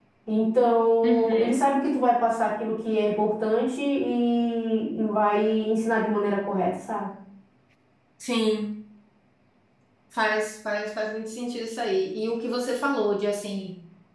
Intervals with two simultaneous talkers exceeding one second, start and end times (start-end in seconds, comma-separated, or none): none